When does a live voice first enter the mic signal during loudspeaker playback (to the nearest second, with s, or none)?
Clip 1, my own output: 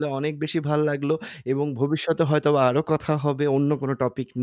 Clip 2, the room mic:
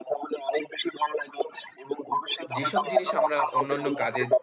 3 s